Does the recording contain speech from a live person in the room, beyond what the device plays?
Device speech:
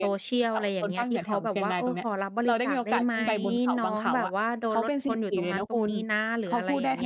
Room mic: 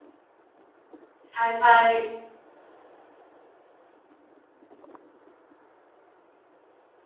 Yes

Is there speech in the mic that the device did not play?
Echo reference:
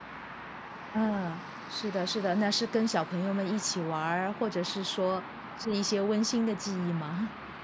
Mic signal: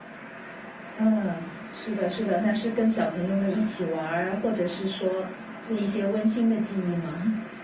No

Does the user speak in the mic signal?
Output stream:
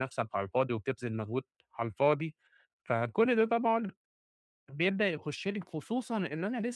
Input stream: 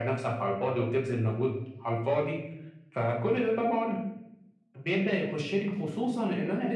No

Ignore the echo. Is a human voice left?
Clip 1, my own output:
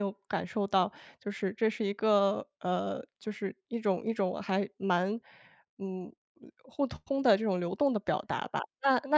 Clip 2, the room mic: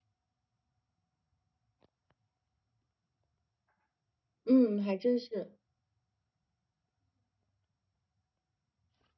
Yes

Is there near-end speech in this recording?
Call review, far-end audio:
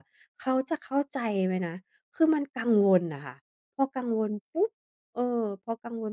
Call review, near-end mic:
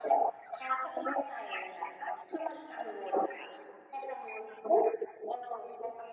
No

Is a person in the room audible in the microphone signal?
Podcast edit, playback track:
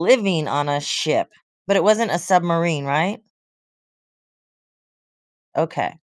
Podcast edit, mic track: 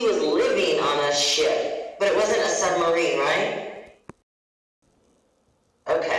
No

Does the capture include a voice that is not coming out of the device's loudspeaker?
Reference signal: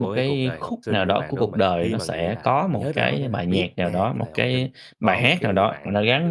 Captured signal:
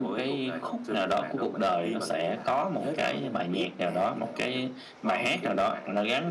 No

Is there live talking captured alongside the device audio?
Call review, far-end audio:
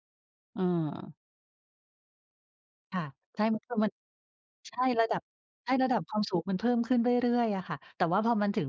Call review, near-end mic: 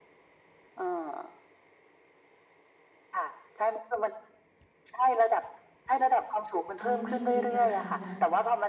Yes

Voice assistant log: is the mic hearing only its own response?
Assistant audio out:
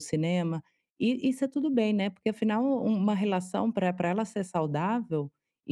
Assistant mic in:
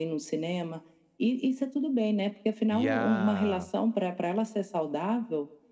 No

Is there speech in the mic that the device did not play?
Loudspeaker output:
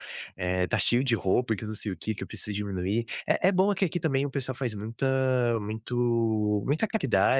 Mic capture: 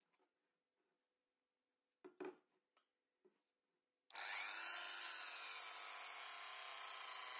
No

